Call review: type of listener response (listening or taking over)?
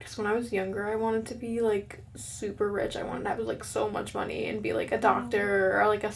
listening